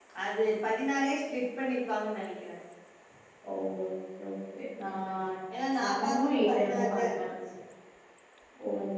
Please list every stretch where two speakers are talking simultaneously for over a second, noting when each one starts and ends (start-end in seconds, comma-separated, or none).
5.8-7.2